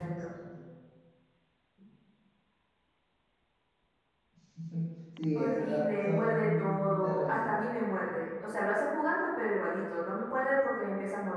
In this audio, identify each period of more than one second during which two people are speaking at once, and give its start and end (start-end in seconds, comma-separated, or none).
5.3-7.7